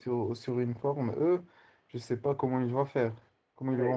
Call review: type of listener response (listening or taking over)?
taking over